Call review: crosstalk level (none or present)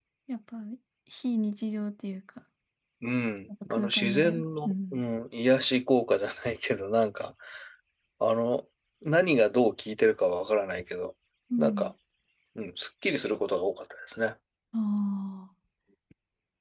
present